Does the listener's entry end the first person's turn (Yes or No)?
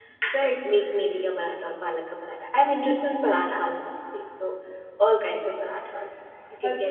Yes